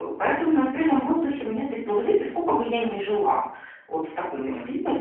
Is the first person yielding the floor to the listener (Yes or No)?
No